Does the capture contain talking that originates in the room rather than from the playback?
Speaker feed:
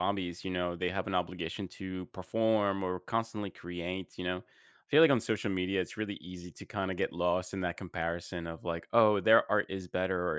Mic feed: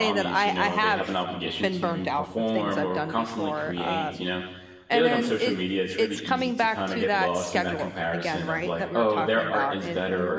Yes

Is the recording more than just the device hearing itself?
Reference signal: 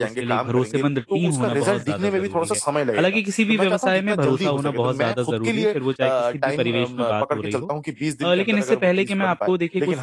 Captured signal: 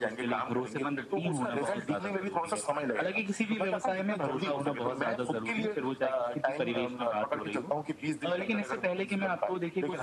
No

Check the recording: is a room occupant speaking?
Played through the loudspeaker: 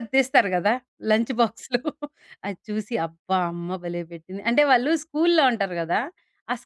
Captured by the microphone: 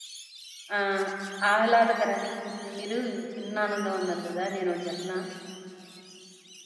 Yes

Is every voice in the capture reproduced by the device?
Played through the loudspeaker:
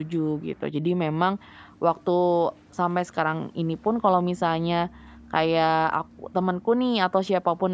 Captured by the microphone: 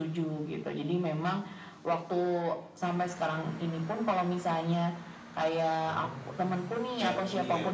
No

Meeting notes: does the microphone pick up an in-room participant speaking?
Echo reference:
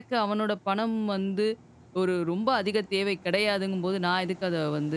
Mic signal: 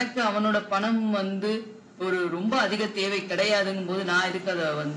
No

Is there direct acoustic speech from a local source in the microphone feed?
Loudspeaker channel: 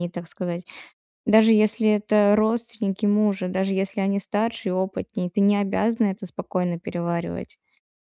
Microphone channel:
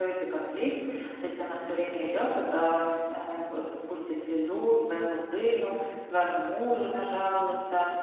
Yes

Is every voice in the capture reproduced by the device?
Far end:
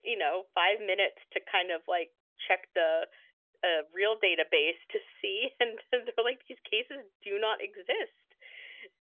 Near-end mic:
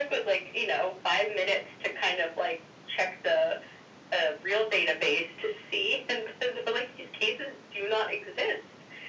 Yes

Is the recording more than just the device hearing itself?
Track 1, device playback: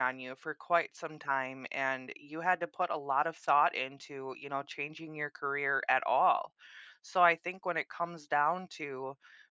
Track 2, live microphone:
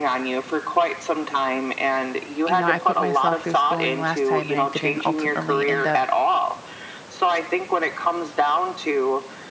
Yes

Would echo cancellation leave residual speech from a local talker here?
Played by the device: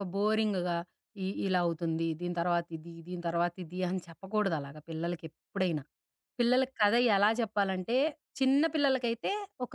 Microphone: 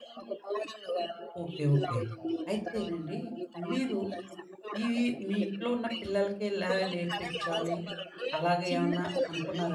Yes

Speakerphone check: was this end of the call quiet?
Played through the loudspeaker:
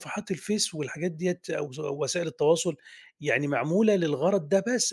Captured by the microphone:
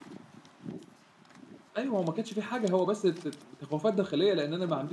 No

